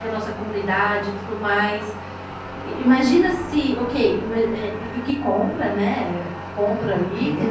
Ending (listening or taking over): listening